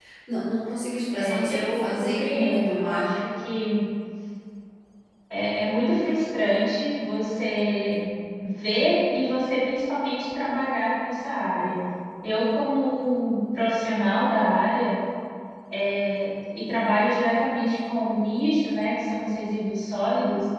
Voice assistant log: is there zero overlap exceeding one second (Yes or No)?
No